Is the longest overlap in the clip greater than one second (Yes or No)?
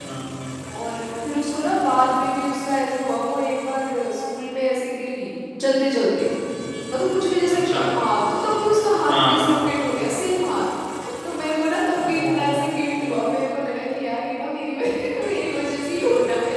No